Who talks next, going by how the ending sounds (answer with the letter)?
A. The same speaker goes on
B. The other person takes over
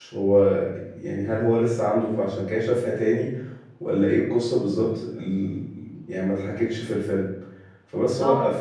A